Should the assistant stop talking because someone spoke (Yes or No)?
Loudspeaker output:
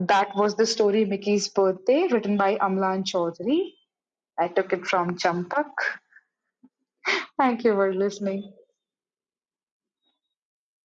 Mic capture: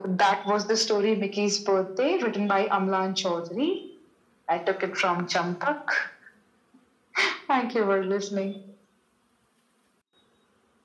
No